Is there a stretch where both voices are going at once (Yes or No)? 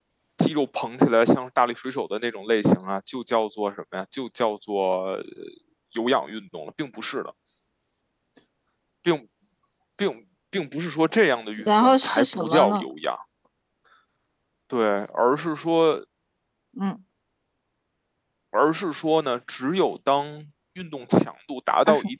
Yes